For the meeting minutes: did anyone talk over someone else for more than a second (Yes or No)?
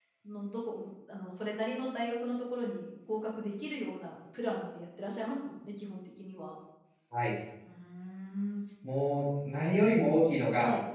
No